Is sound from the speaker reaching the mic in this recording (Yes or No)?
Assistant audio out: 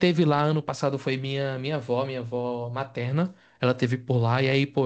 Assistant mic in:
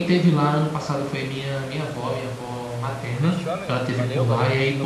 Yes